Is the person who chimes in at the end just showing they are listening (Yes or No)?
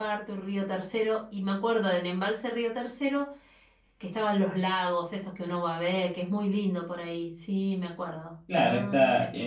No